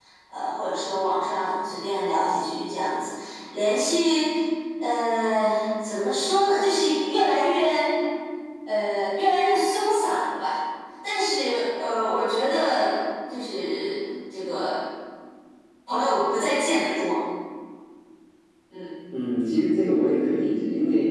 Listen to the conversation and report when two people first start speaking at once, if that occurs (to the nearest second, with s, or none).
none